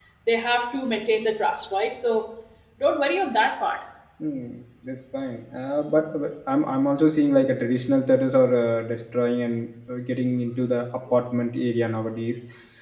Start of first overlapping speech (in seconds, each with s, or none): none